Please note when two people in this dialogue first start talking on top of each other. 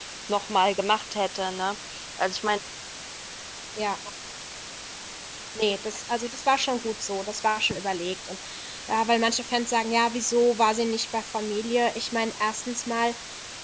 none

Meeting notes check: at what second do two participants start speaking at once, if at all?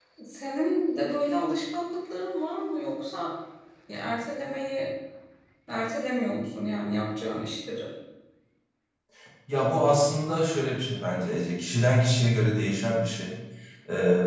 none

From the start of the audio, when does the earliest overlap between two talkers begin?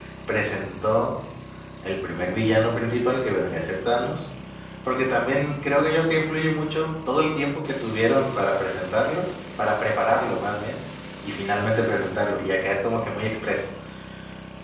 none

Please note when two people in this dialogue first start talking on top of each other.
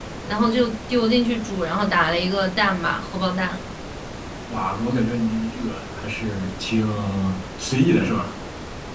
none

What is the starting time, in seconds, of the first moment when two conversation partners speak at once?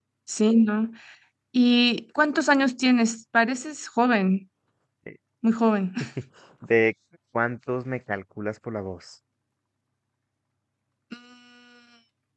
none

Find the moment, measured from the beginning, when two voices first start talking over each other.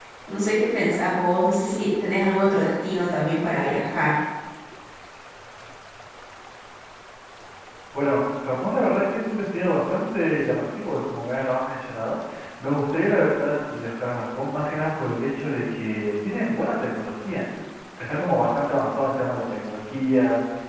none

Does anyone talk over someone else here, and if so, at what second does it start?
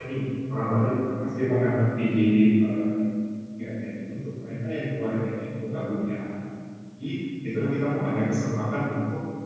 none

